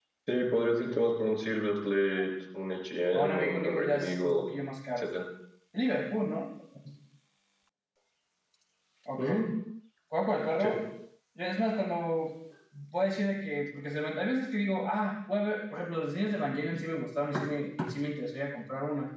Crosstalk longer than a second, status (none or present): present